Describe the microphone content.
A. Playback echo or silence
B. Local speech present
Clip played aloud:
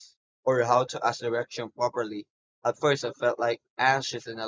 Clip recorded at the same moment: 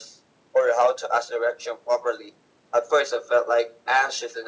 A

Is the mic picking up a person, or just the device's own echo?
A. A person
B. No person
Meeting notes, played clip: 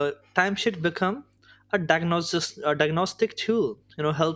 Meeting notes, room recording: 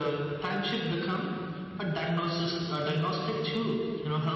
B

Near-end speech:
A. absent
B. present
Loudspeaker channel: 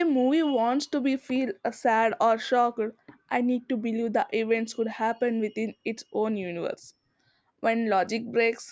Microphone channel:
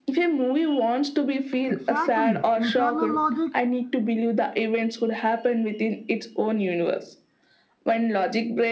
B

